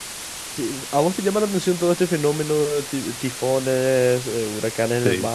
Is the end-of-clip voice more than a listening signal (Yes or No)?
No